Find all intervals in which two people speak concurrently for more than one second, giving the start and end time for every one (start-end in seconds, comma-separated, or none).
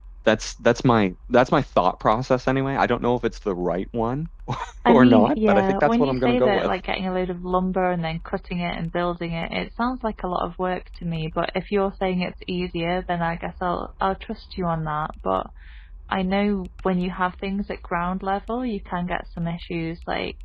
4.9-6.7